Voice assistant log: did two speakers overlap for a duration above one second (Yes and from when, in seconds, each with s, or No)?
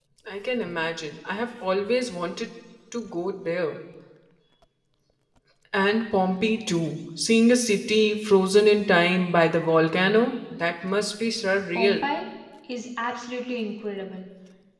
No